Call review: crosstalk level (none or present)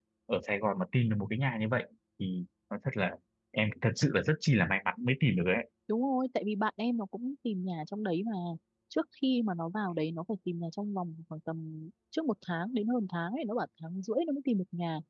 none